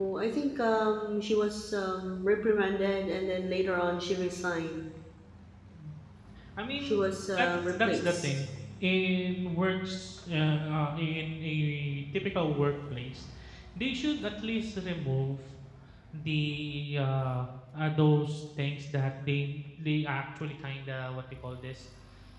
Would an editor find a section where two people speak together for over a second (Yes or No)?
Yes